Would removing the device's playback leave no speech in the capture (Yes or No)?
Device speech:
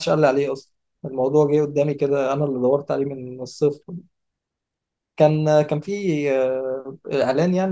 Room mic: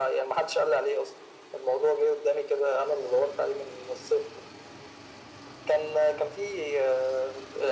Yes